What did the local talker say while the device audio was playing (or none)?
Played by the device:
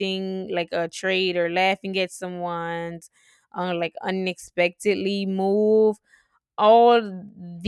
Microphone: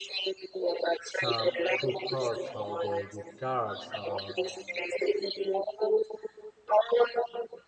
some who hurts all the good cards or